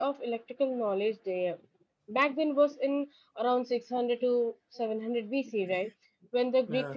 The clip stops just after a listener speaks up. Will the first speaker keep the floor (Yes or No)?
Yes